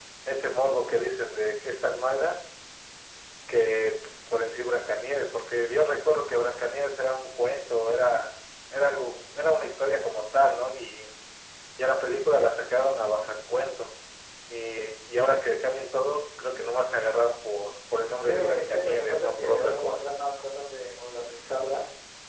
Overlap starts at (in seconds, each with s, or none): 18.2 s